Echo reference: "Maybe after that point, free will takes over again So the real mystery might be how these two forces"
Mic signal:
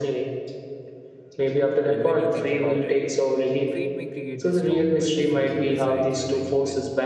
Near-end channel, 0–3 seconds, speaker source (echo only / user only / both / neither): both